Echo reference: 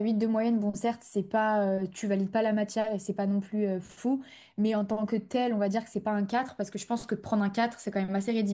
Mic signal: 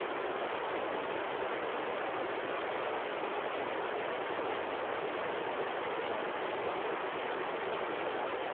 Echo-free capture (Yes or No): Yes